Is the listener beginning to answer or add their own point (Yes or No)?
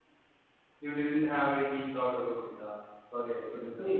Yes